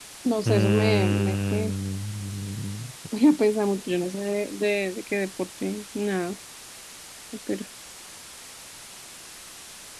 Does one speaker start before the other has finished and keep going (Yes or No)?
Yes